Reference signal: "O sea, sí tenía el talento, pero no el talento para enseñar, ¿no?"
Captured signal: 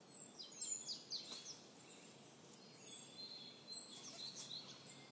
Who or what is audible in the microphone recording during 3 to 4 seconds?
neither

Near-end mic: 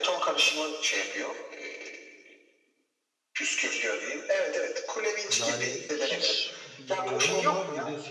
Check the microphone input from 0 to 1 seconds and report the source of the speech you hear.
echo only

